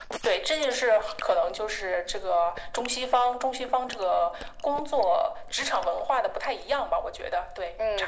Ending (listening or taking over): taking over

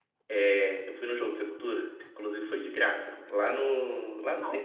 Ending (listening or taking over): listening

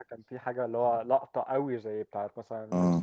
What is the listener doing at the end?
taking over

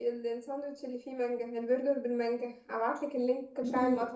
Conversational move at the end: taking over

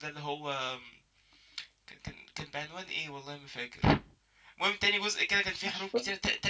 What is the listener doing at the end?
listening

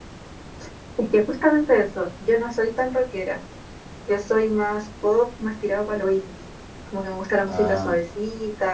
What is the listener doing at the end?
listening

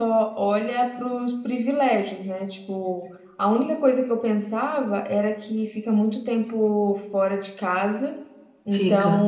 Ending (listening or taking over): listening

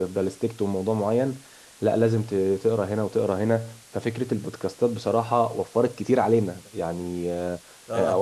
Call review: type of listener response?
listening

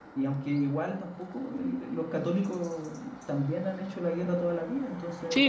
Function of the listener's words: taking over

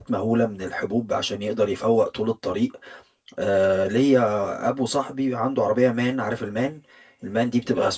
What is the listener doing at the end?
listening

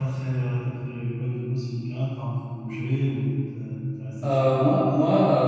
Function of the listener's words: taking over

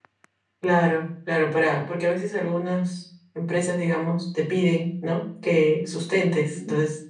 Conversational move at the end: listening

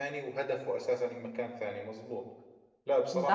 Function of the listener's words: listening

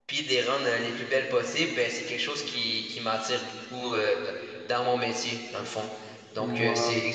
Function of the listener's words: listening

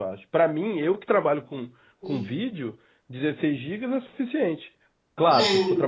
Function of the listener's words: listening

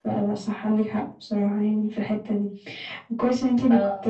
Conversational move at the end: listening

